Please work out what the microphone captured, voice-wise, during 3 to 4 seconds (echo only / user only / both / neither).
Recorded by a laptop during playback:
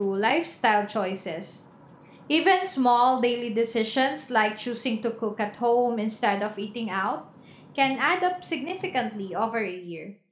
user only